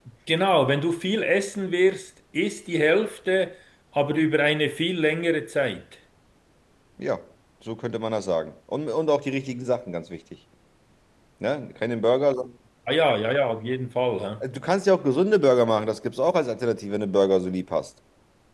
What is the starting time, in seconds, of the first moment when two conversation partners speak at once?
none

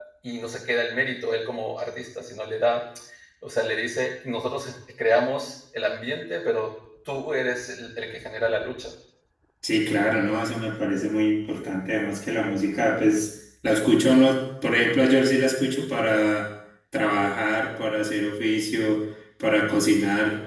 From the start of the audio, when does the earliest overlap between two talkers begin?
none

